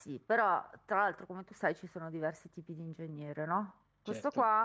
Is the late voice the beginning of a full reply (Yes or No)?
No